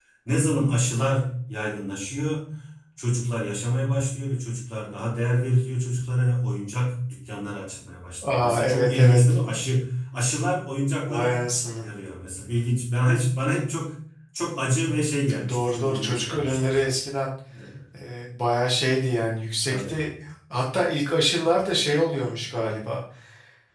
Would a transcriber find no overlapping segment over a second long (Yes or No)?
No